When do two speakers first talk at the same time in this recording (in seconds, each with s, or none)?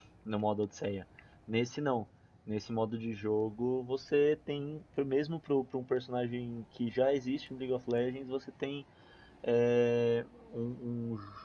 none